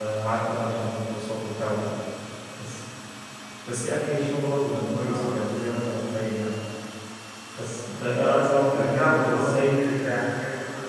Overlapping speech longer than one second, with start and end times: 8.7-9.9

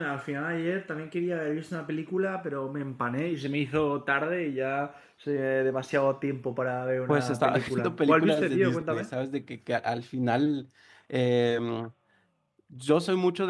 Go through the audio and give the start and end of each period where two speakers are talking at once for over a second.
7.1-9.1

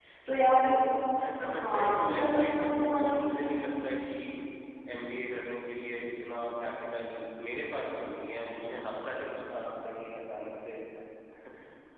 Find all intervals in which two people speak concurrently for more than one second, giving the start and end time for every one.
1.5-3.2

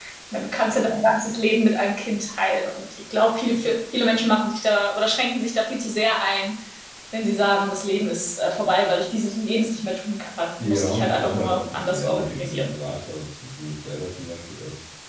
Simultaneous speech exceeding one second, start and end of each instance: 10.6-12.7

